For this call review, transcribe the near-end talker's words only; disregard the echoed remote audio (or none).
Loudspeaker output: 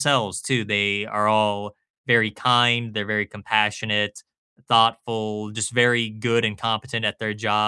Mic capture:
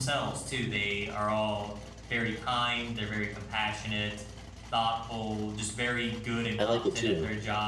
I like it too.